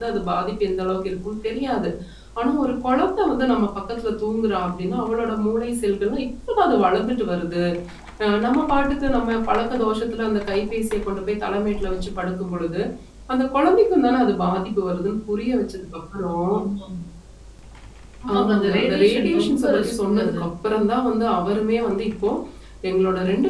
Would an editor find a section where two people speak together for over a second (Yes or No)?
Yes